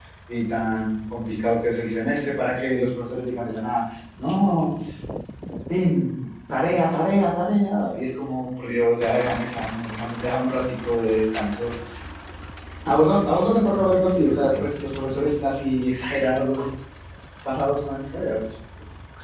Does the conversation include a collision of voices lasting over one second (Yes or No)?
Yes